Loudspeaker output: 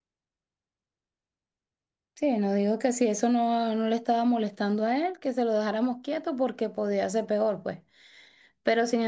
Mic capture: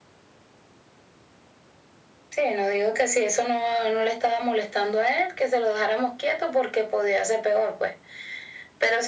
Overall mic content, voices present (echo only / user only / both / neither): echo only